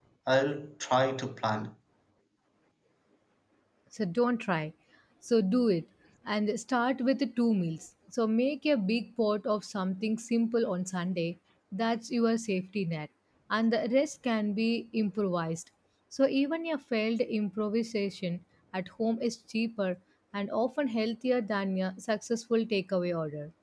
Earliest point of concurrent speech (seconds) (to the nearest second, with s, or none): none